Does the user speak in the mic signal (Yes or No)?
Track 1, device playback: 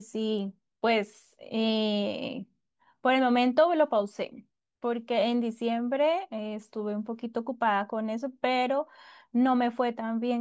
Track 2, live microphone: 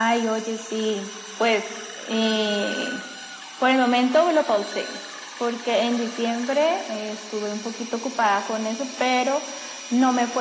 No